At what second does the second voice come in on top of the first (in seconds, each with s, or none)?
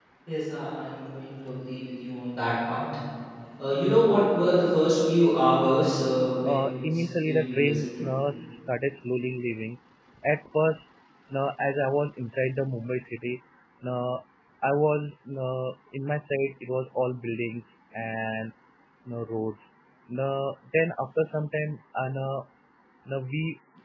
6.4 s